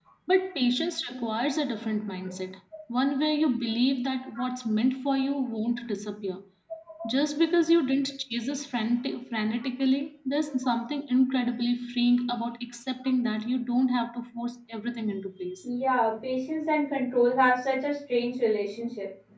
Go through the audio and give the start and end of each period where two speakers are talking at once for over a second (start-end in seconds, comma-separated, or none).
none